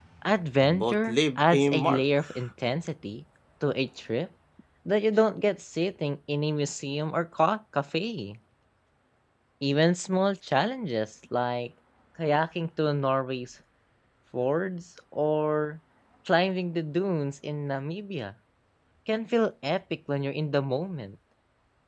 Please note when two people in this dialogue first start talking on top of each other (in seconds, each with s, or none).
0.6 s